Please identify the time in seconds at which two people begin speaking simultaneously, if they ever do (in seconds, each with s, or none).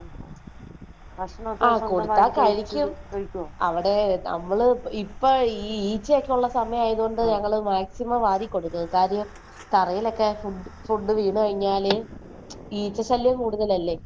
1.7 s